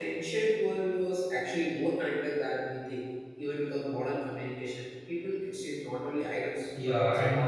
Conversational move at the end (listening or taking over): taking over